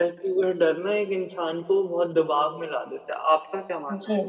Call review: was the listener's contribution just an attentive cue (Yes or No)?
No